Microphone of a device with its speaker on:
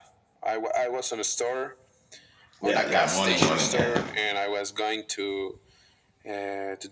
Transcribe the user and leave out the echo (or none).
Yeah. Yeah. Morning. Morning. Yeah.